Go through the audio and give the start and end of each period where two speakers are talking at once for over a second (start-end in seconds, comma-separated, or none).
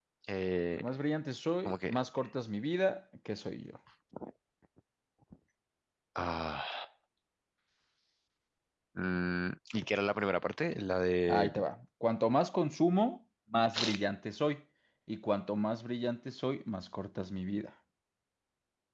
none